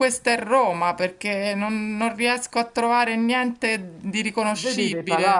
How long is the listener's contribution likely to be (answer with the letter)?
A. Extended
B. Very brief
A